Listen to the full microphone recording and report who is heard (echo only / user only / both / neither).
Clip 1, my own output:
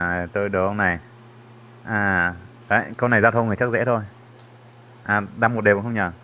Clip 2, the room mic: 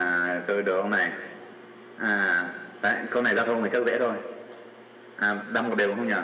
echo only